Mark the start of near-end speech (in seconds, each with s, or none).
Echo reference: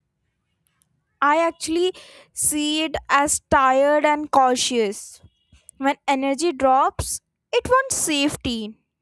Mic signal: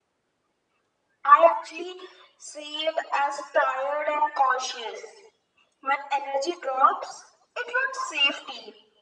none